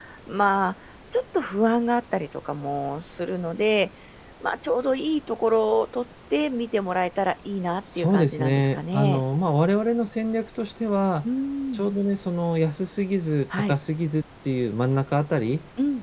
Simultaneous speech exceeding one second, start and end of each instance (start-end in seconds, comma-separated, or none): 8.0-9.2